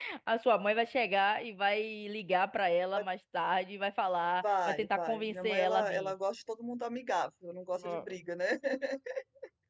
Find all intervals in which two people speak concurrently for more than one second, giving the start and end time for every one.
4.4-6.1

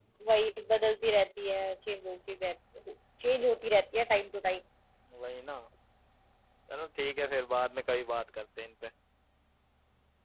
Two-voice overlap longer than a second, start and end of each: none

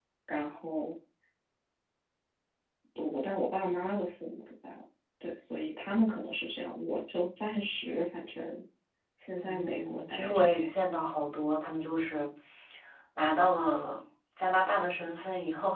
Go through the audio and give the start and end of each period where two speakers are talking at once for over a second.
9.4-10.7

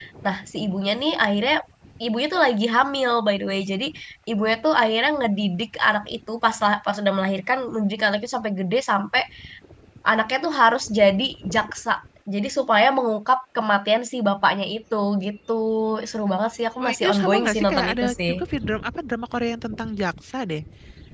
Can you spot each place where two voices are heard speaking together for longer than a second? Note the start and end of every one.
16.8-18.3

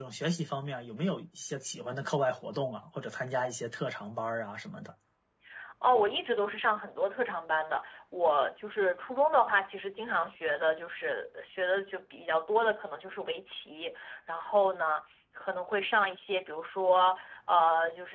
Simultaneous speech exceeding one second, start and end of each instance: none

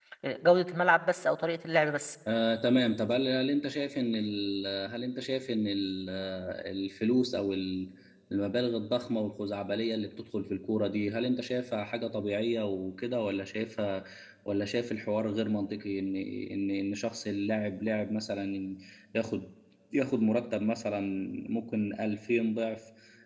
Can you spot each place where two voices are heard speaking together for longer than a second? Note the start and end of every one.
none

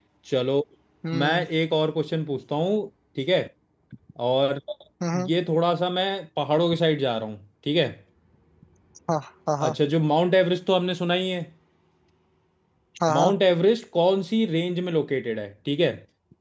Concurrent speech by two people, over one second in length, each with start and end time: none

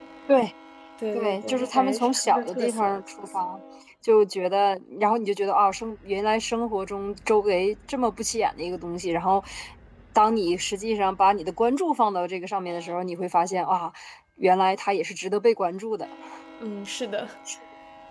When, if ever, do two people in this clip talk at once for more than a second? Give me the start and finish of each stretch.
1.1-3.0

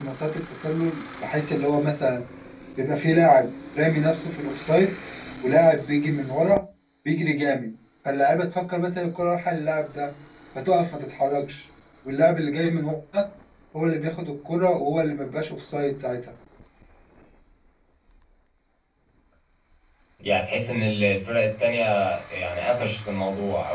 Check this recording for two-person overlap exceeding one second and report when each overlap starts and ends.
none

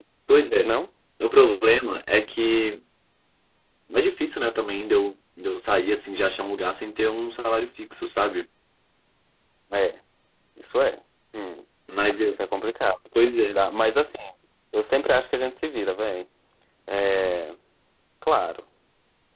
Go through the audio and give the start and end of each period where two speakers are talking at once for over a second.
none

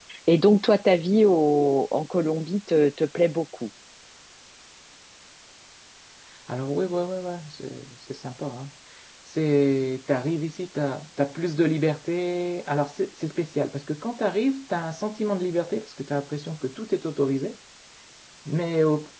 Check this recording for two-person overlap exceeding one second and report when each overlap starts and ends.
none

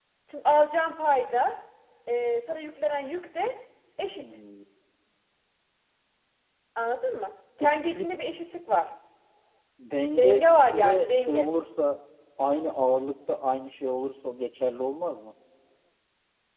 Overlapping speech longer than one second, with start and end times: 10.2-11.5

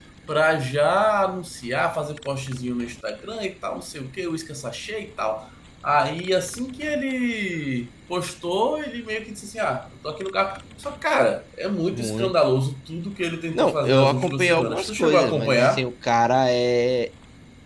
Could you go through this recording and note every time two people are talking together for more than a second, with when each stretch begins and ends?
13.5-15.8

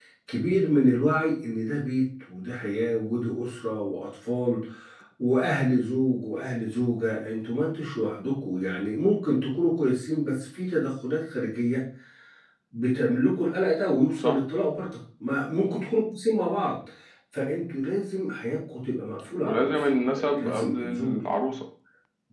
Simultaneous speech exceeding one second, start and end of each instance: 19.4-21.1

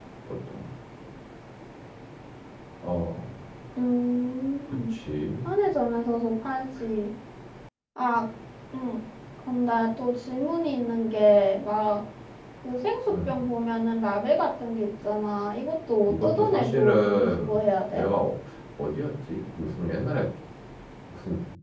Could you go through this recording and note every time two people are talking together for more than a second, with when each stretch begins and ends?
16.1-17.5

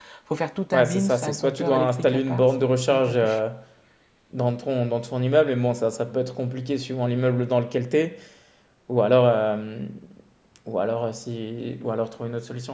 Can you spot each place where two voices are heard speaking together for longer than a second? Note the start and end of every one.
0.7-3.4

